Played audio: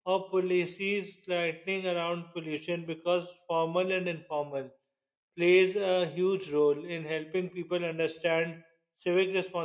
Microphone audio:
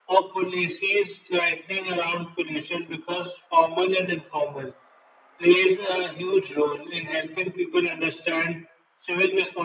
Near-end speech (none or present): none